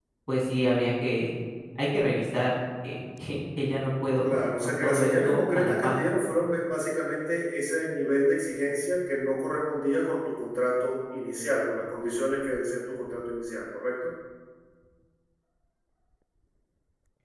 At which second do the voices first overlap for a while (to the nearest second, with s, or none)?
4 s